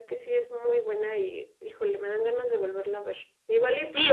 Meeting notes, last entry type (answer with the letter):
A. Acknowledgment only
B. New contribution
B